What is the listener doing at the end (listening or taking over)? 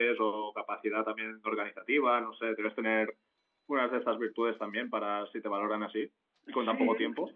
taking over